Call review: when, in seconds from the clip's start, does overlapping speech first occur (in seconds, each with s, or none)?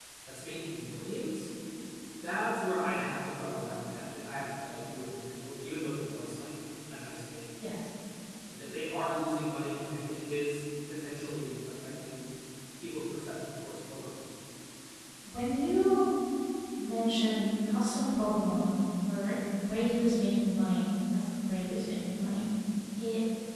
none